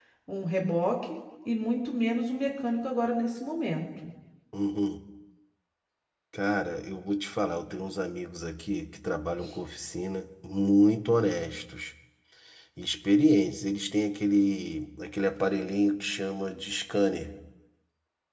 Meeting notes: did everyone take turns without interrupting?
Yes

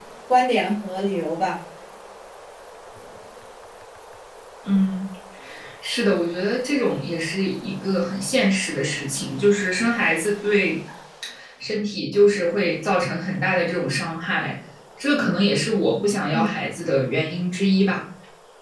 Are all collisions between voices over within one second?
Yes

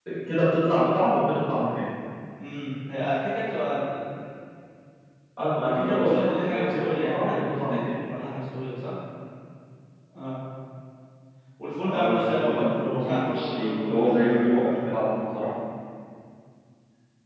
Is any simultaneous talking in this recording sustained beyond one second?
Yes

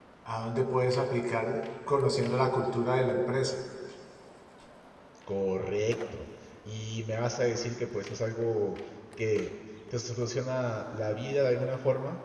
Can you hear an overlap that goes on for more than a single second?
No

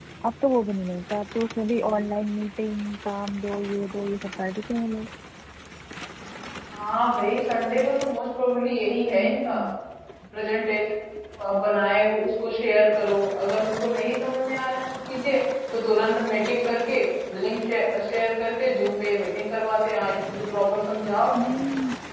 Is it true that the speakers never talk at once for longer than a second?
Yes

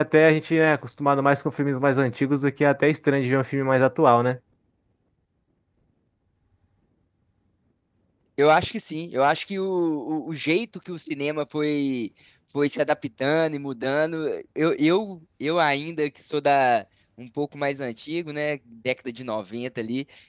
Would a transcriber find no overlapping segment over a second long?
Yes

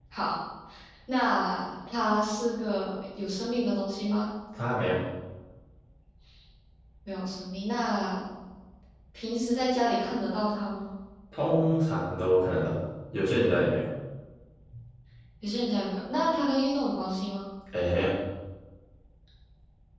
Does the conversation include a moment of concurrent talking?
No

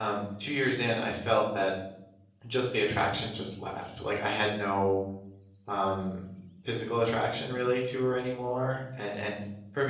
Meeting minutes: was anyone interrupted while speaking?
No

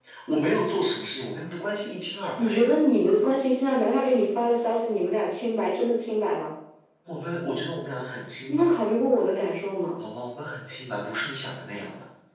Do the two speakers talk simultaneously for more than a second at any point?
No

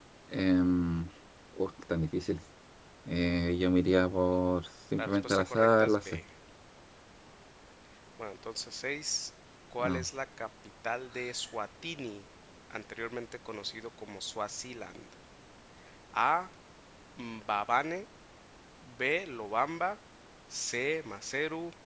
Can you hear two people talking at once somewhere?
Yes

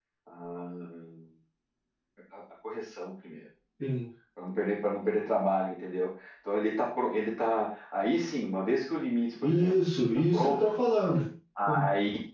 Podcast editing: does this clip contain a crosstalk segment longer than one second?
Yes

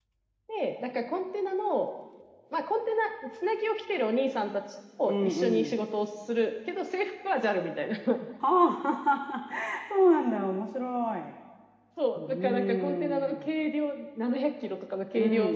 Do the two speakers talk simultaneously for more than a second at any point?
Yes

